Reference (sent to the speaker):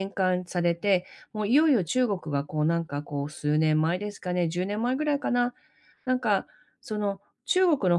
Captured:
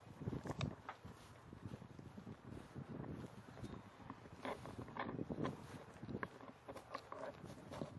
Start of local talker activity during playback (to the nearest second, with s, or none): none